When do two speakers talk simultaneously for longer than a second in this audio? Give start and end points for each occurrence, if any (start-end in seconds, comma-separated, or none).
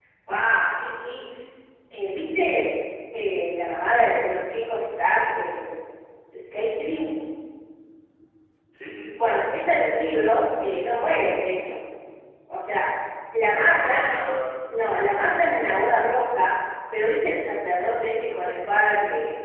none